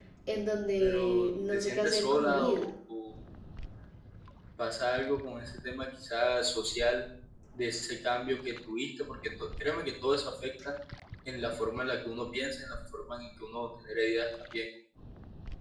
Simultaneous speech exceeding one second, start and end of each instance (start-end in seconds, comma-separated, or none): 0.8-2.7